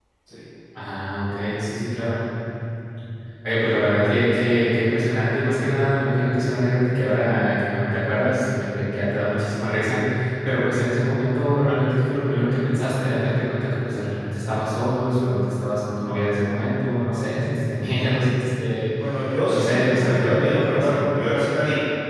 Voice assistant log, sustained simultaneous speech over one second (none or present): present